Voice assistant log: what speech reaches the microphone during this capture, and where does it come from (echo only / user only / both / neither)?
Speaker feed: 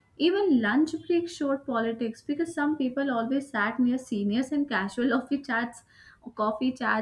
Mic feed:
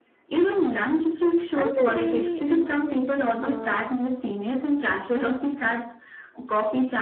both